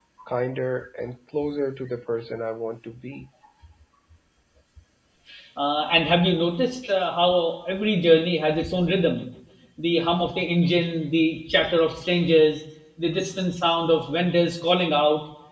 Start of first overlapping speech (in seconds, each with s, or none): none